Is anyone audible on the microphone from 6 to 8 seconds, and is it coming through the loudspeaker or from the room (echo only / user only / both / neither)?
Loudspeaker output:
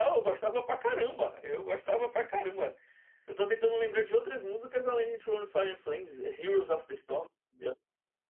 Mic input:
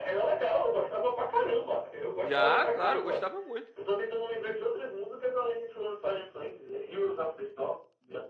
echo only